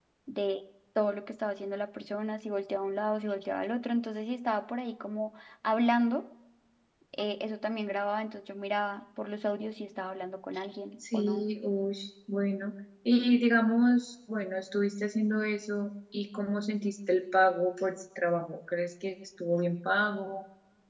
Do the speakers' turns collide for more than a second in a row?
No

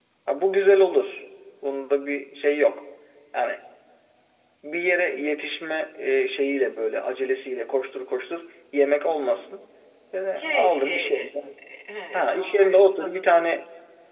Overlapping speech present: Yes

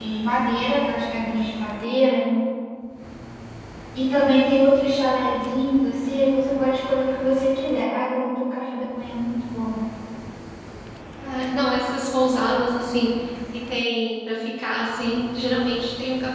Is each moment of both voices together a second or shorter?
Yes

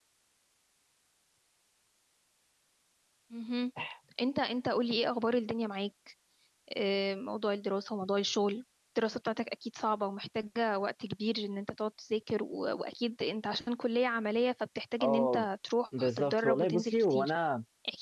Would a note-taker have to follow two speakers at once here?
Yes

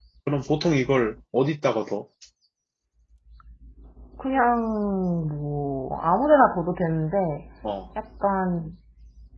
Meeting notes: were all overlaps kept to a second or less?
Yes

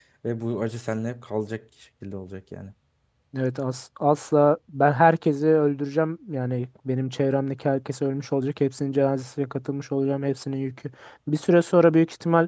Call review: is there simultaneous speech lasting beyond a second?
No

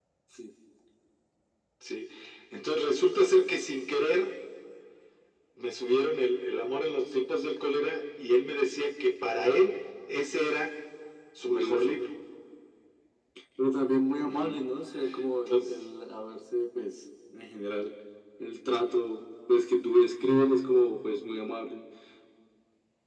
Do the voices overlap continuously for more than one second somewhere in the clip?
No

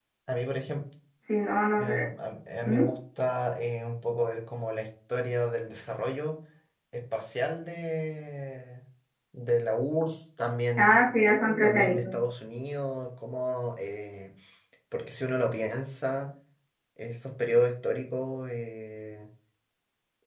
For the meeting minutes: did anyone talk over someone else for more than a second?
No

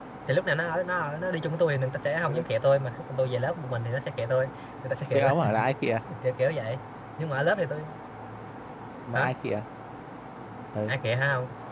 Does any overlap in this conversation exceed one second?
No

